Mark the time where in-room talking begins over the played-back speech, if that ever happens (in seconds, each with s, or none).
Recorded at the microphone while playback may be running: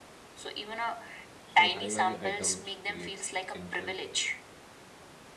1.4 s